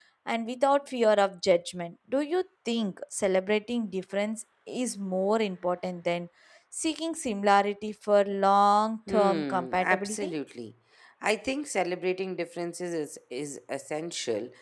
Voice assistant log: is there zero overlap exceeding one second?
No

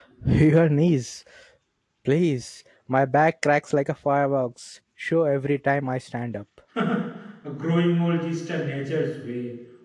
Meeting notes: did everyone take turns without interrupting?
Yes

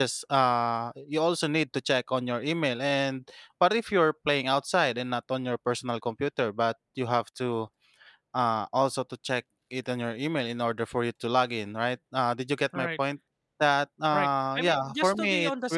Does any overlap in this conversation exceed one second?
Yes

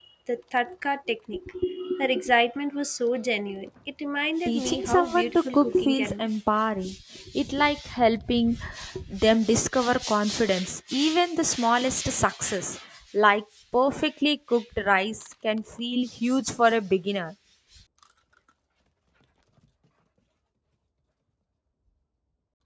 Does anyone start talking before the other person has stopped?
Yes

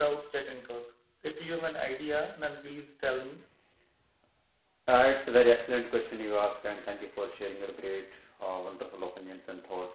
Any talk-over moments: No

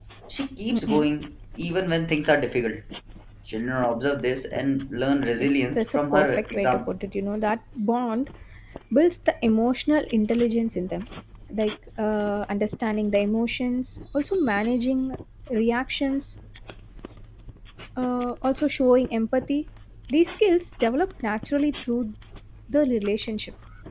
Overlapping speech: Yes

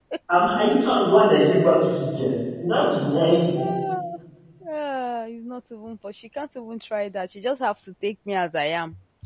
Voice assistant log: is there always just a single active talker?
Yes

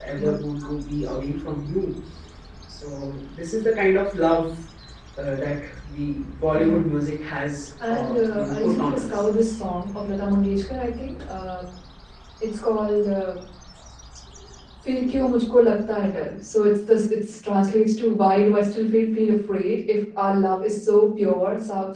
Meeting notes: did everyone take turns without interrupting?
No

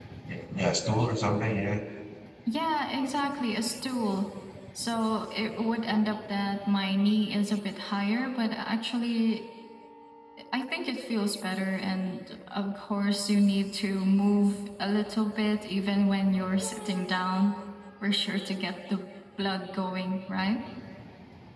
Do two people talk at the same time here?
No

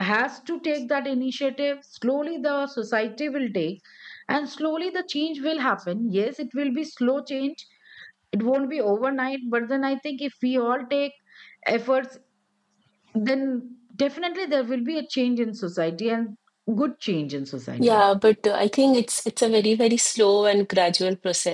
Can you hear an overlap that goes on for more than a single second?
No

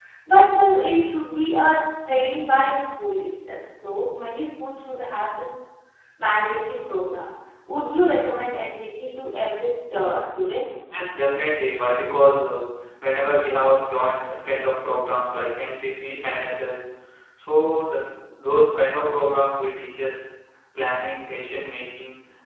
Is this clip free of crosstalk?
Yes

